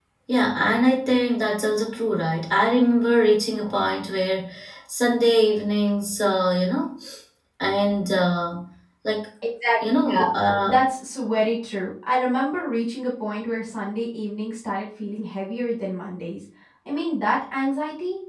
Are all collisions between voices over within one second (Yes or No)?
Yes